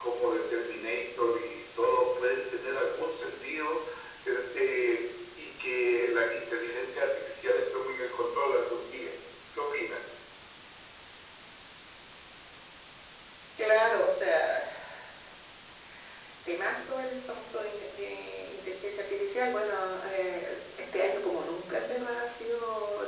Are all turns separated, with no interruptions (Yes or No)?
Yes